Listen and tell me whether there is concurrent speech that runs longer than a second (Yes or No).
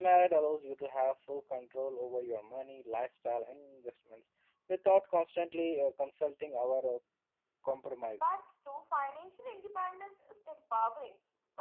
No